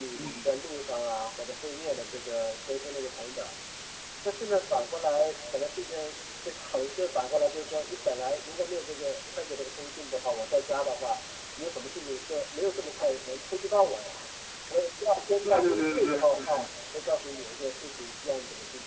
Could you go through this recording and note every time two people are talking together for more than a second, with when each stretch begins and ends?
15.4-16.7

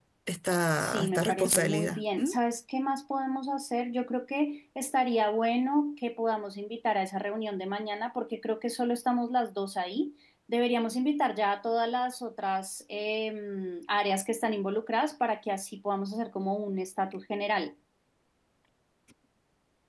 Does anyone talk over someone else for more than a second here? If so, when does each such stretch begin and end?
0.8-2.4

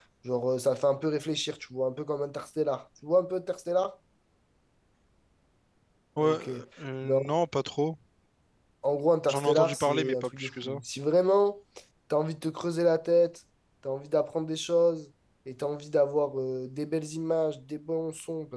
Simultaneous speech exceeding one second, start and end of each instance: 9.3-10.8

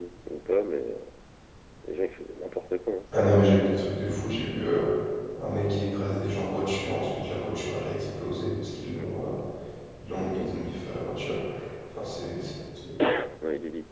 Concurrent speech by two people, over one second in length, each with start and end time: none

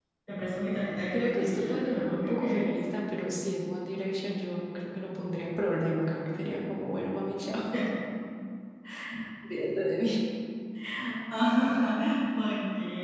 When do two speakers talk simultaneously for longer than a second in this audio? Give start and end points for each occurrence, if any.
1.1-2.7

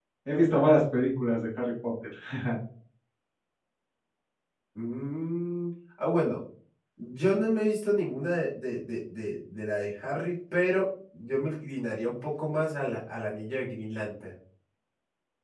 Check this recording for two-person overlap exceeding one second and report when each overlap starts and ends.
none

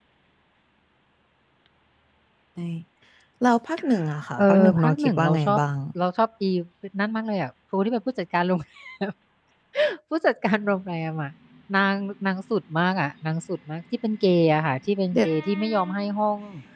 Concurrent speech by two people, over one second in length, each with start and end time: 4.4-5.6

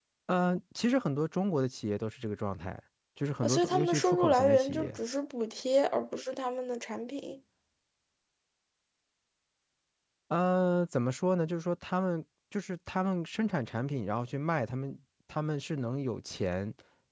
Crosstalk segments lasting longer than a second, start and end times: 3.4-5.0

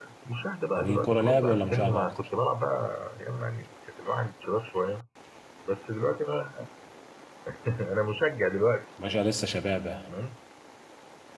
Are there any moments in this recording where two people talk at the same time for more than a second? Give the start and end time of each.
0.8-2.1

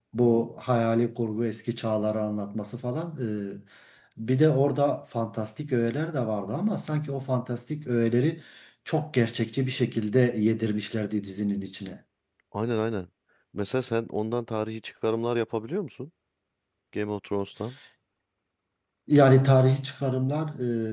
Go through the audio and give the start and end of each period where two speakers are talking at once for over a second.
none

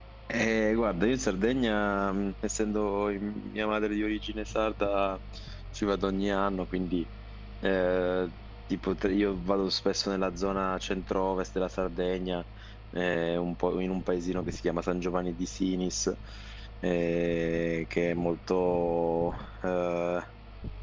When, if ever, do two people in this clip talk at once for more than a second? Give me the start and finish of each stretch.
none

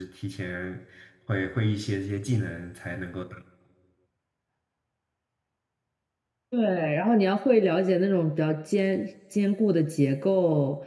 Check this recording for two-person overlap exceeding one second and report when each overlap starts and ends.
none

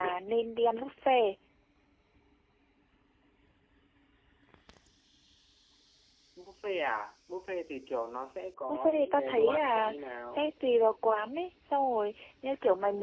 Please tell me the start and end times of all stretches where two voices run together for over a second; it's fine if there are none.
8.7-9.9

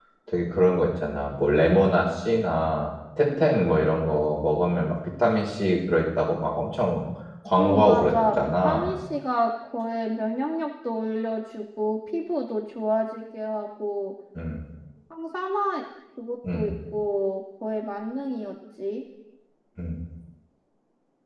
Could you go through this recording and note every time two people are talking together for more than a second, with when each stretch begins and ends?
7.6-8.9

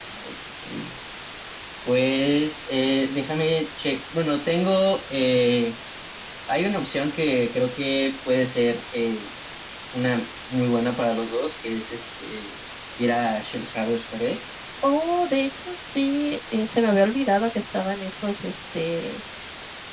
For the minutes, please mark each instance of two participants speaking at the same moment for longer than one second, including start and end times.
none

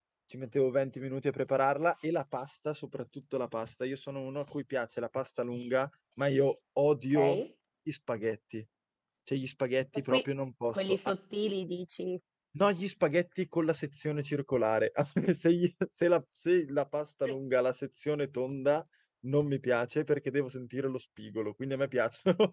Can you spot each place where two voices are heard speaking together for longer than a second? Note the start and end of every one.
none

